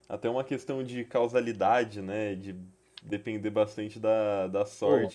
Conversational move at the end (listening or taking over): listening